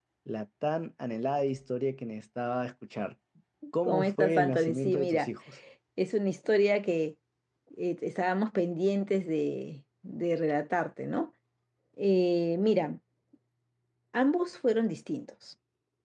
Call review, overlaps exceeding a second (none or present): present